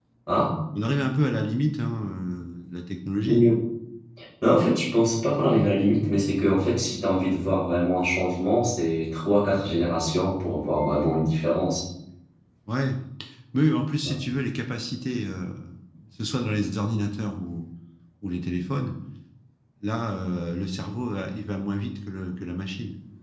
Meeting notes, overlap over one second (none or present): none